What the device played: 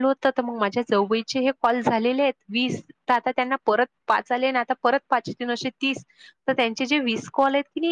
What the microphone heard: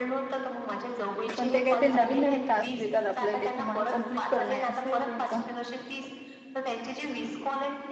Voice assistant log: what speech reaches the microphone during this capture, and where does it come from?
both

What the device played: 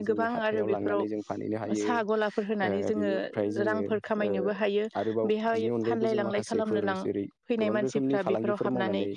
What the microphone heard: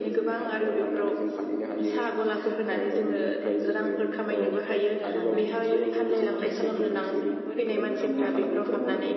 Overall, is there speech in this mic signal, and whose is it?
both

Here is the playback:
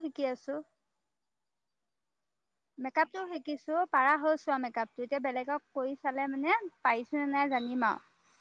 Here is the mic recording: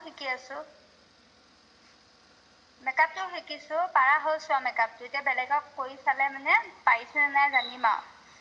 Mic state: echo only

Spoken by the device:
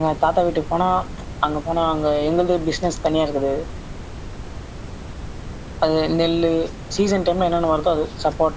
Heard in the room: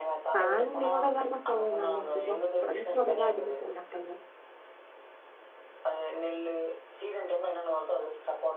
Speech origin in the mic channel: both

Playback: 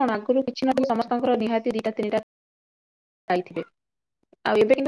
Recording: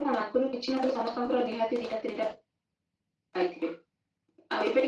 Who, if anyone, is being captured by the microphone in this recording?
echo only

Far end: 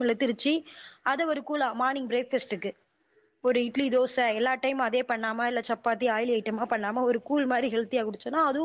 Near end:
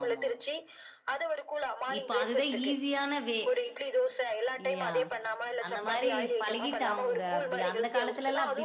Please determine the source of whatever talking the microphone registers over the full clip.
both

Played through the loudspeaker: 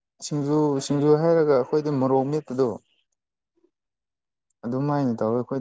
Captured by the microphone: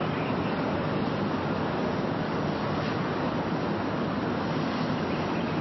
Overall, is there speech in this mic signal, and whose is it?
neither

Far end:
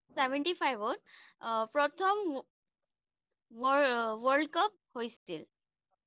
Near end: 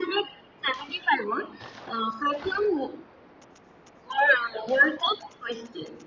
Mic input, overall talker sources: echo only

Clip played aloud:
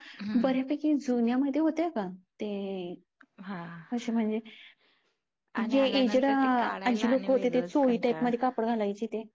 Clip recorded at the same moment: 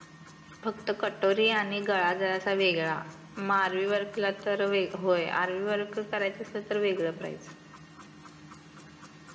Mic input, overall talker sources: user only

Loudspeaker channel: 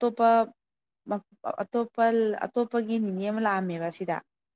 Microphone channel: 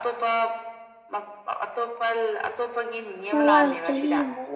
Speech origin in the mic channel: both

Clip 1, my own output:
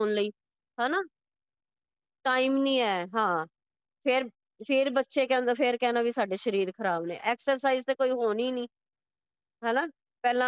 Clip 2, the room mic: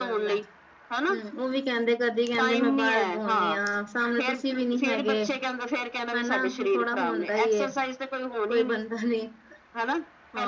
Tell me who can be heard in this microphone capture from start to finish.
both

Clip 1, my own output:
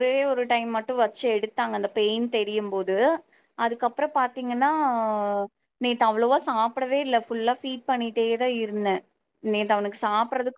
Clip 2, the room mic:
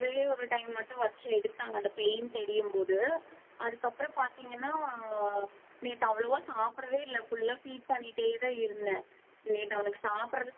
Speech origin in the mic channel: echo only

